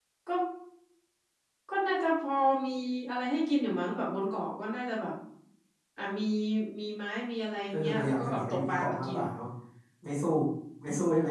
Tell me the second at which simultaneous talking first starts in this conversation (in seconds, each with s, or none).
7.7 s